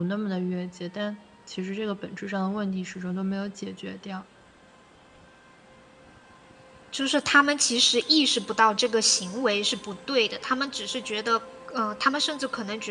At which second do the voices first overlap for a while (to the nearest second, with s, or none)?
none